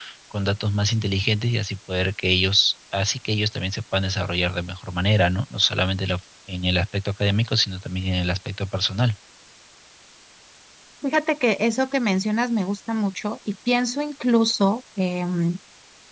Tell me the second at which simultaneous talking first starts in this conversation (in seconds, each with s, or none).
none